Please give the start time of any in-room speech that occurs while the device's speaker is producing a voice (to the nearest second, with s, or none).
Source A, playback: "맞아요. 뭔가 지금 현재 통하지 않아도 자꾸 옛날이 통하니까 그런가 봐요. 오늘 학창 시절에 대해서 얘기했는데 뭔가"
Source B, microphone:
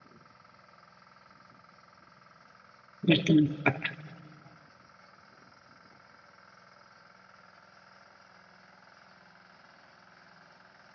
3 s